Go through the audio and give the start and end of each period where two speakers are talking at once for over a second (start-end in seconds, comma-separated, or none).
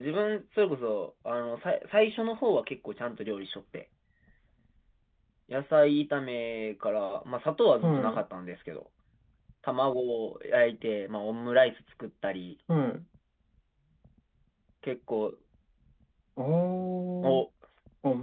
none